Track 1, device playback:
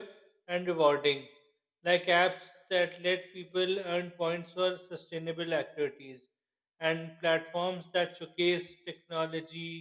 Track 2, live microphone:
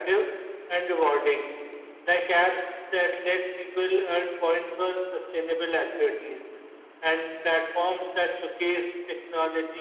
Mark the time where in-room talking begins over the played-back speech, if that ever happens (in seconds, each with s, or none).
none